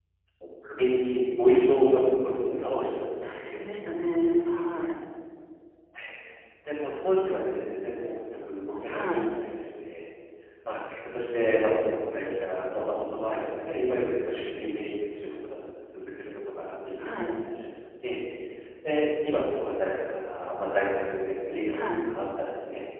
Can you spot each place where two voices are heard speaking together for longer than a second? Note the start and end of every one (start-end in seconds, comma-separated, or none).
none